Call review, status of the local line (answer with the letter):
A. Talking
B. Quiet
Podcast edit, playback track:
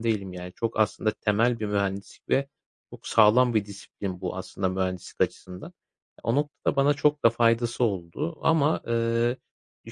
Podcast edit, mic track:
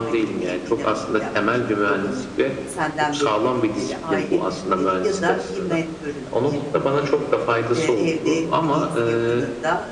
A